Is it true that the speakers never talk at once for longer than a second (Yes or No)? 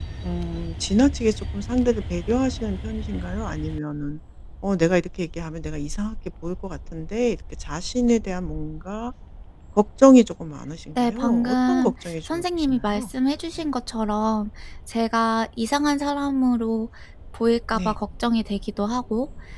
No